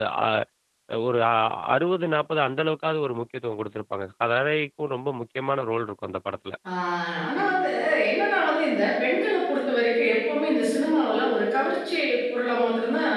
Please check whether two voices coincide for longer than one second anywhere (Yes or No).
No